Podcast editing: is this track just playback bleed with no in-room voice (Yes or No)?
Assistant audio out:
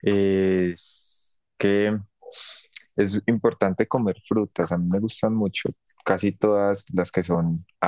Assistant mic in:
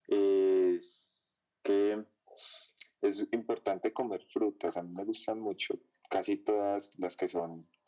Yes